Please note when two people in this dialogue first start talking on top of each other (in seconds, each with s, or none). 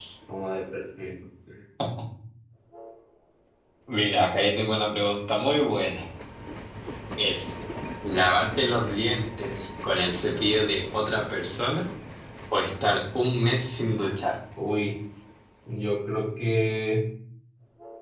none